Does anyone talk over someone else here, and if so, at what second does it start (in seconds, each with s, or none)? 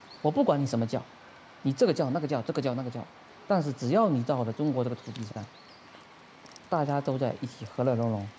none